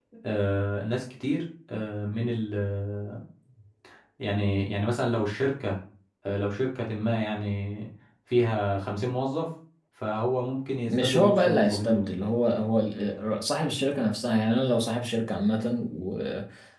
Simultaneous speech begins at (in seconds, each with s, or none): 10.9 s